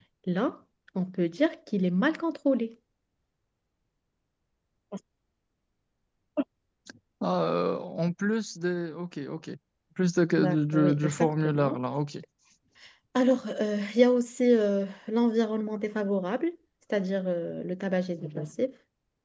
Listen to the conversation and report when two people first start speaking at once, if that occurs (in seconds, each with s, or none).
10.4 s